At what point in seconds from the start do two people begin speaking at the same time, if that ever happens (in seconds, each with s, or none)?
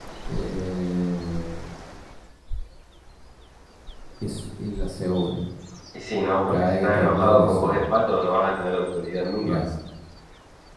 6.5 s